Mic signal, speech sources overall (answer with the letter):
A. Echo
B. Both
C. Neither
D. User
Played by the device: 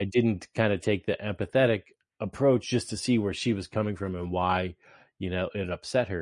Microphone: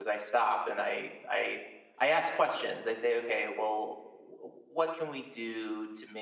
D